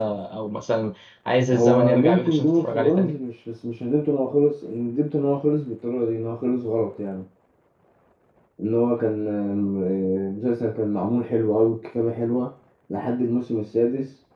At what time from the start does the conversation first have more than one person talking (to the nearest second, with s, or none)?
2 s